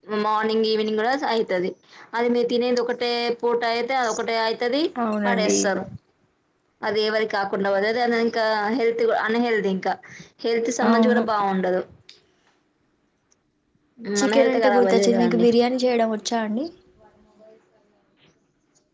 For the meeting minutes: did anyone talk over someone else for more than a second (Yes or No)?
Yes